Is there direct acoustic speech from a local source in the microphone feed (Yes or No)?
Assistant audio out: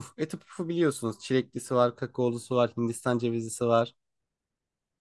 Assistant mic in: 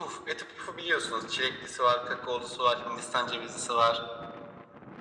No